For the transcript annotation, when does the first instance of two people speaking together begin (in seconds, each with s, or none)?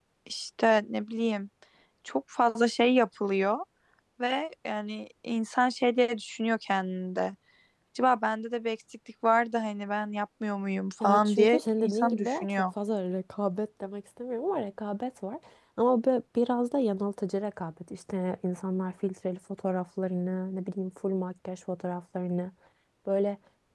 11.0 s